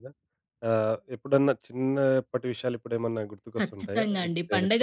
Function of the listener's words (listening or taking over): taking over